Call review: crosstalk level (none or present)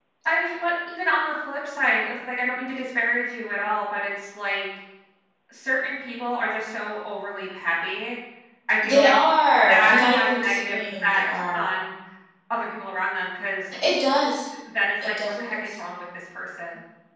present